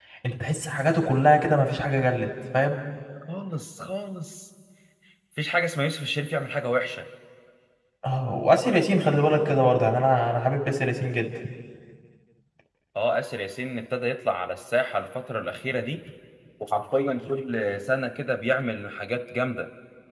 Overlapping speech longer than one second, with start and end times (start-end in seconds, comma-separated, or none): none